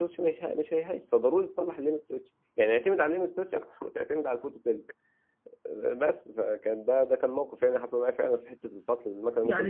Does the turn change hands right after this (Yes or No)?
Yes